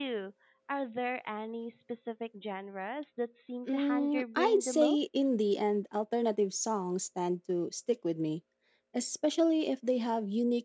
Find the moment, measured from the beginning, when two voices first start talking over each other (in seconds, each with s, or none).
3.7 s